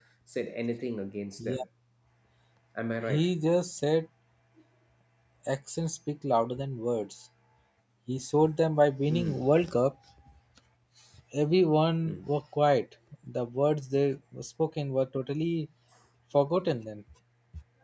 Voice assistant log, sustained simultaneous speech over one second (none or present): none